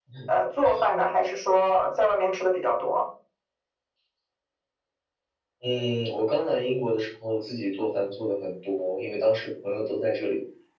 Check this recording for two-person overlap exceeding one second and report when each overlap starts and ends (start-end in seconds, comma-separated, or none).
none